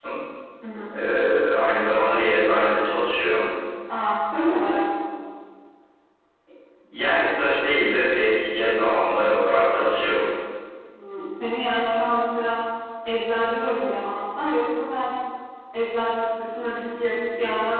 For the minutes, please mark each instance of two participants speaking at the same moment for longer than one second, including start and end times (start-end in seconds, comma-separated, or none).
none